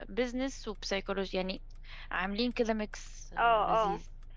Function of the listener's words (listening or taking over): taking over